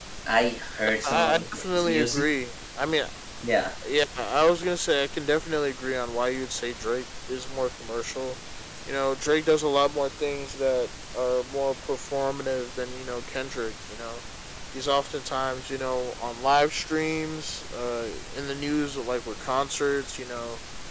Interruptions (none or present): present